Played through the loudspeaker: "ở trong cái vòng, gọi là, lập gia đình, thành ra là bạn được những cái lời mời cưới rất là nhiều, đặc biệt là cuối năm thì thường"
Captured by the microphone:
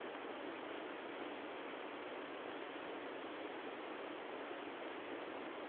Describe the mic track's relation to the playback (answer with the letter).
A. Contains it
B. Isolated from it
B